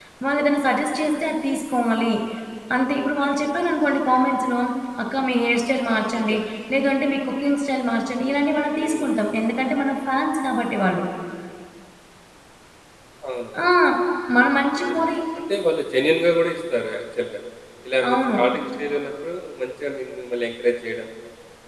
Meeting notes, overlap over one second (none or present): none